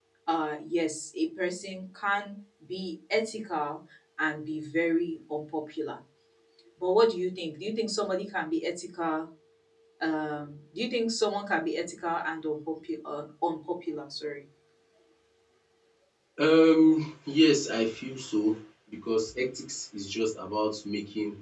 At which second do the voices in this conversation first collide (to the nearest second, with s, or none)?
none